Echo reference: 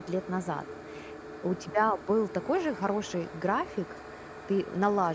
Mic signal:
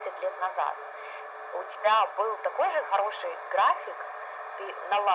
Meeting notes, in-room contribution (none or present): none